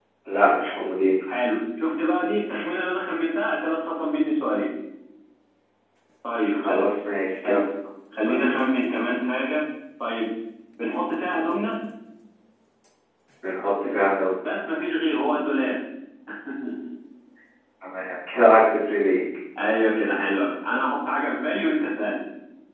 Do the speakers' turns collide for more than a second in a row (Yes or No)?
No